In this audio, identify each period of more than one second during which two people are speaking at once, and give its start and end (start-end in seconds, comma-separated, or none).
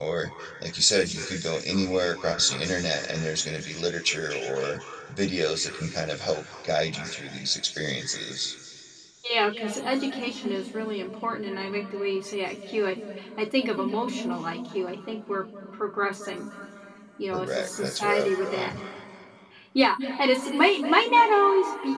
17.3-18.7